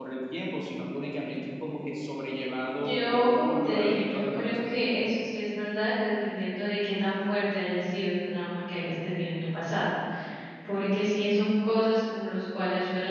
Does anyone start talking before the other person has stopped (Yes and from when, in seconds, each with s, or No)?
Yes, from 2.8 s